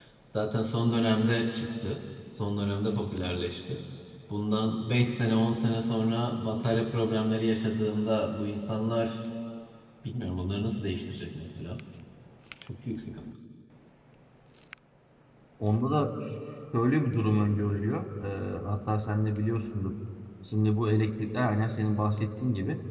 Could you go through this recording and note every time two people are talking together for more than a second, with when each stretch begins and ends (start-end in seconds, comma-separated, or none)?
none